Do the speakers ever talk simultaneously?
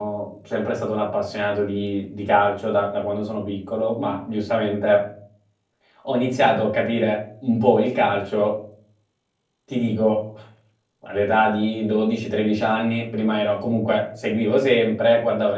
No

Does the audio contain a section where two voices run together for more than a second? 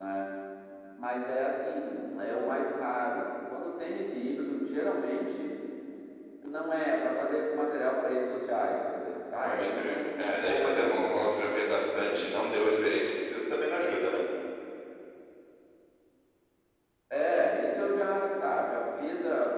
Yes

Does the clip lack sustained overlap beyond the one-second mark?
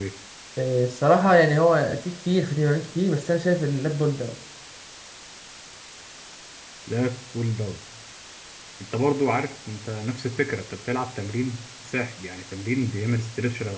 Yes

